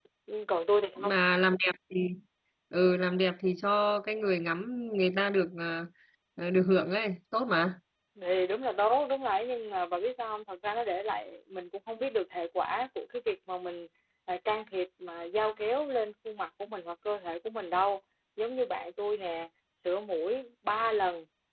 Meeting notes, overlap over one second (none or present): none